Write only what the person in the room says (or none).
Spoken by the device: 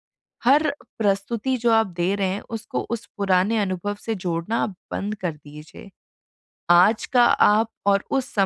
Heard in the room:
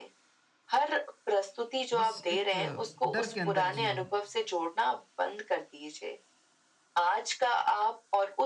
बस एक अ, डर के अंदर जिया हूँ।